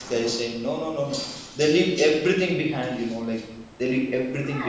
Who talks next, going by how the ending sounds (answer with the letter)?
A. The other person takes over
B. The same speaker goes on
A